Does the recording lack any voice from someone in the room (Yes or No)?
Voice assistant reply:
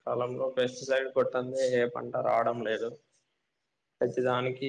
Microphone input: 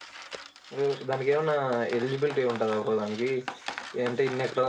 No